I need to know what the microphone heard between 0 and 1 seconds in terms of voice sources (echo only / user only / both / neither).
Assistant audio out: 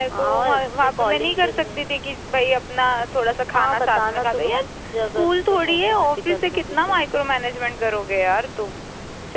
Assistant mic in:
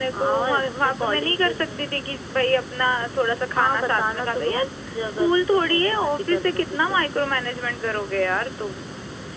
echo only